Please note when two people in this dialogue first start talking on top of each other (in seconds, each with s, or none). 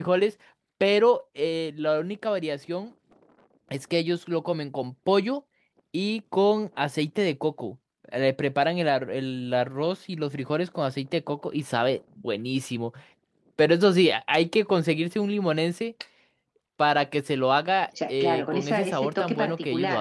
18.0 s